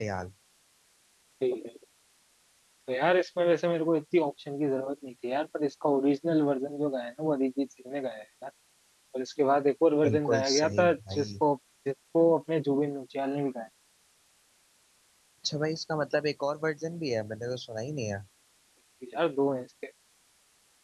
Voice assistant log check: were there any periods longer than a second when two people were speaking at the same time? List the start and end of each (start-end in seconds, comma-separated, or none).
10.0-11.4